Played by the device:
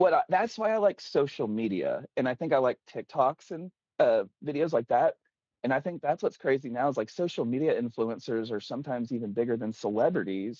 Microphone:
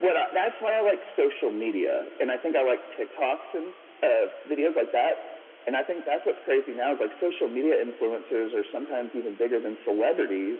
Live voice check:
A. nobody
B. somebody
A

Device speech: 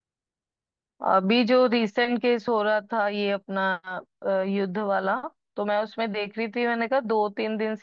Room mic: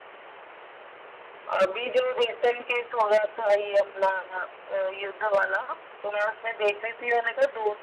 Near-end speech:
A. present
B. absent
B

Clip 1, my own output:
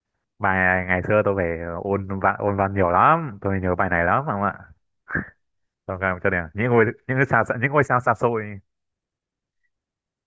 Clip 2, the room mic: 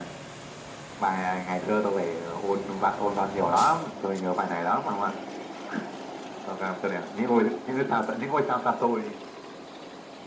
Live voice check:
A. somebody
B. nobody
B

